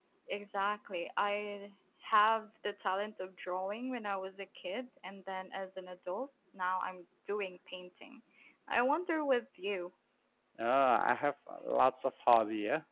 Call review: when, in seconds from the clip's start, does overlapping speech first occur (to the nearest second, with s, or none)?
none